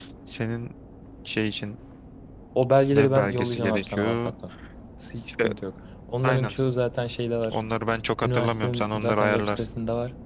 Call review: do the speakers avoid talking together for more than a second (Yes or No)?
No